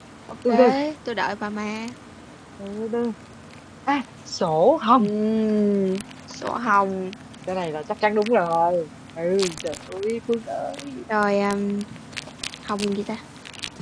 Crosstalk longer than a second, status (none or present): none